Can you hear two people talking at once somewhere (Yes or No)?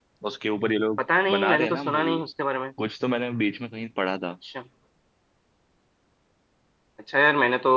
Yes